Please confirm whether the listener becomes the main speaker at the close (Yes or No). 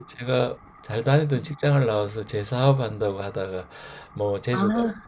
No